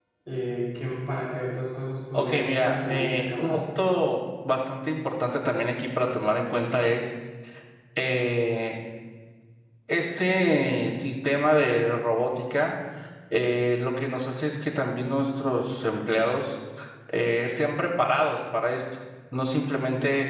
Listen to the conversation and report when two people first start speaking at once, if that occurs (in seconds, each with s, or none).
2.1 s